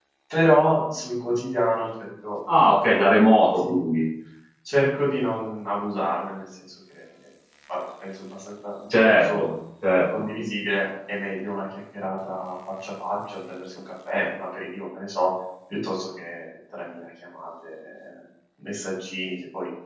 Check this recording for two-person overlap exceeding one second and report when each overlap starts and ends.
none

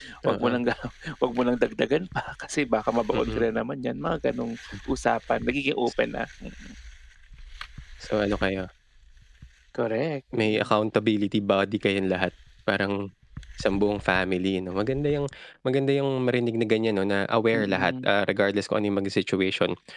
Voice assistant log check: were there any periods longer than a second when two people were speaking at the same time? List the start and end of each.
none

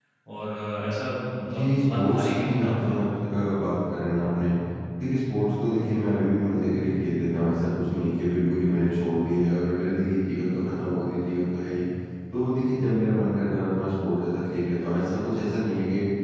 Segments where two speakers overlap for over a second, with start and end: 1.5-3.0

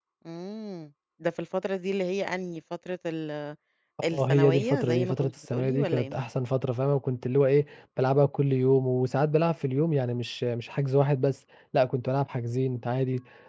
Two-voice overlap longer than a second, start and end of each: 4.1-6.2

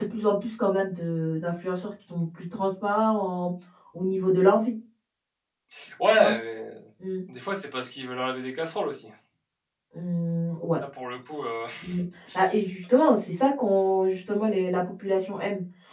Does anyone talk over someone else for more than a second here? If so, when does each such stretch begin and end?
none

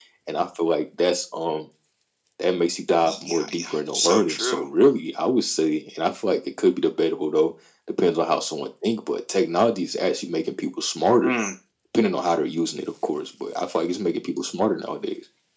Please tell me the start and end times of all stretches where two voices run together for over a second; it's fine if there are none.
3.0-4.7

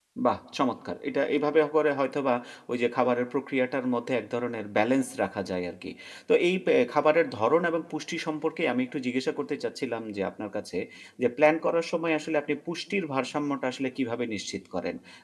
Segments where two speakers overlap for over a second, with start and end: none

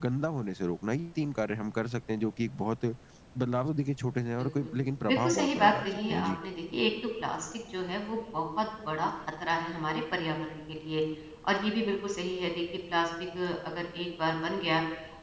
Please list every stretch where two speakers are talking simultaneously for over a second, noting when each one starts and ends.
5.1-6.3

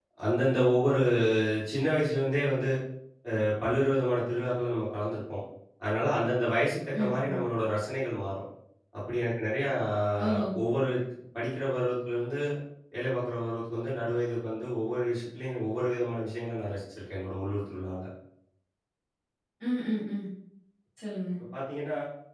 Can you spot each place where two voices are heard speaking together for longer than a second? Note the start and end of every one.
none

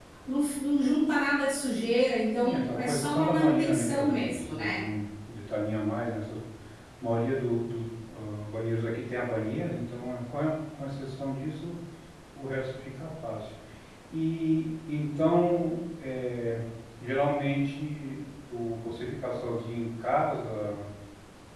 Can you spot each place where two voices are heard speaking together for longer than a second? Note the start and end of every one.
2.4-4.8

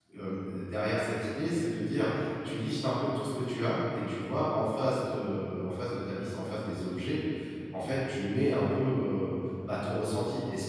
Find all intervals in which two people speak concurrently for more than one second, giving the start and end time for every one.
none

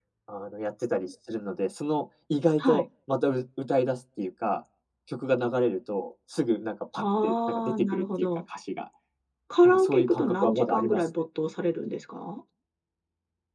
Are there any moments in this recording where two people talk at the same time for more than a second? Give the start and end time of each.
7.0-8.3, 9.7-11.1

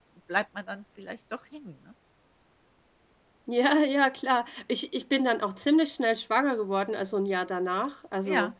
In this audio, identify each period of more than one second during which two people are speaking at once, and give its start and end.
none

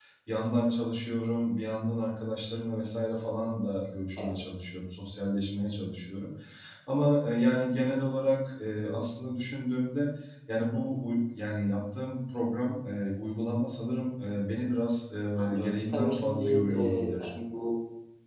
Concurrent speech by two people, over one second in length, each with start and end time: 15.4-17.3

